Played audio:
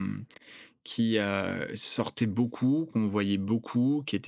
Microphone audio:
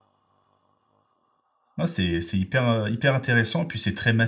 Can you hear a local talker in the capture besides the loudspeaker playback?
Yes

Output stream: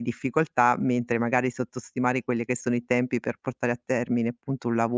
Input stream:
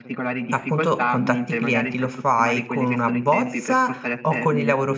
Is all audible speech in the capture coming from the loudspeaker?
No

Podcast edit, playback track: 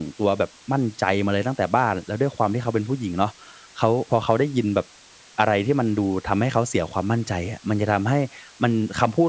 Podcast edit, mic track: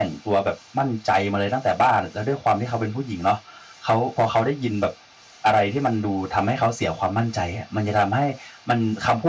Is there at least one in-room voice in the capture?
No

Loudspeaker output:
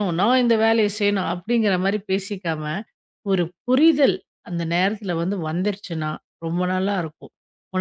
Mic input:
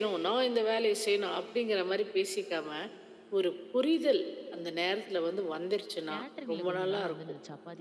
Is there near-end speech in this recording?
Yes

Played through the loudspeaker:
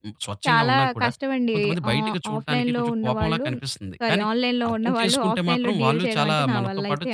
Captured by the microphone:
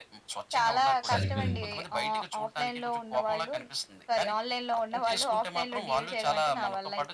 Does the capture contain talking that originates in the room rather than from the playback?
Yes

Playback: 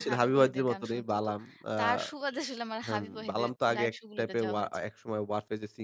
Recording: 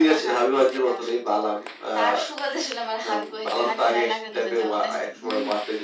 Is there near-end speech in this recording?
Yes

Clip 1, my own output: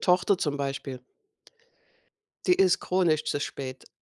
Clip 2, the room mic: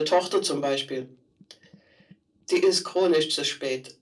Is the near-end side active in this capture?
No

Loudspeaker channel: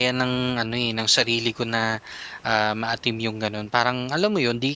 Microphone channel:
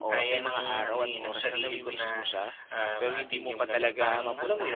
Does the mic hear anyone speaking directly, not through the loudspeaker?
Yes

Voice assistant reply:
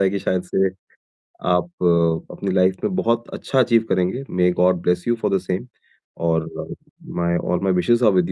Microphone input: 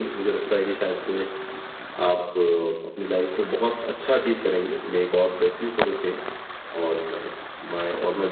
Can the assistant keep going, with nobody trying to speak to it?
Yes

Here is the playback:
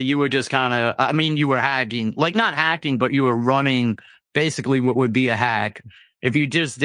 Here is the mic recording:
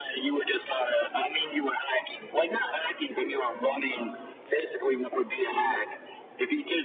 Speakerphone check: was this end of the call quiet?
Yes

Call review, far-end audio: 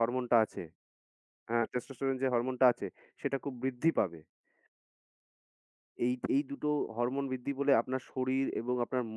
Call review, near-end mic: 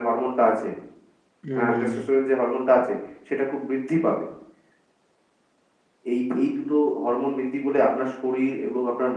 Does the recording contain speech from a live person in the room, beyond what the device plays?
Yes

